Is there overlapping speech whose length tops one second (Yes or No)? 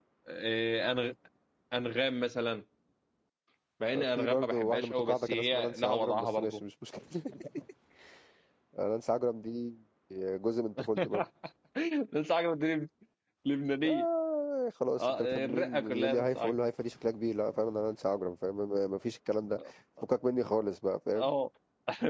Yes